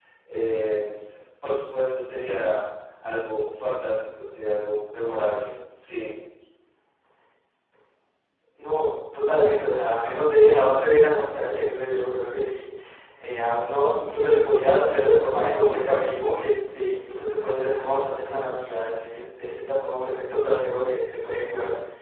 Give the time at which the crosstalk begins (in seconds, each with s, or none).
none